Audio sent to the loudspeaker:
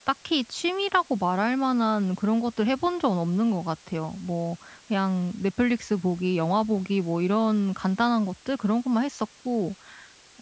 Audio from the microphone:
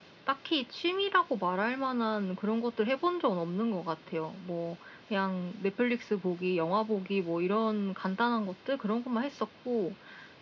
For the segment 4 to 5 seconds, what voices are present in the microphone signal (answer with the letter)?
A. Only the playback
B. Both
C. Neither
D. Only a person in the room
A